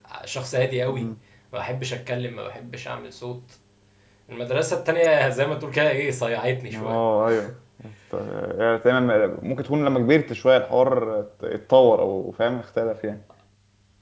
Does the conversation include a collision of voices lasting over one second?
No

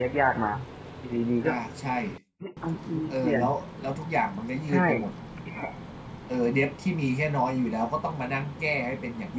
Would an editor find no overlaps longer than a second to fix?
Yes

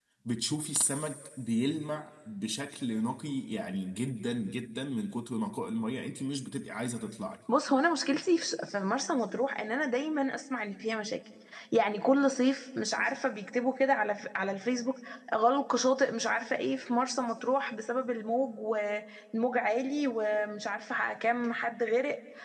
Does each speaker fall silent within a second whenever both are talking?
Yes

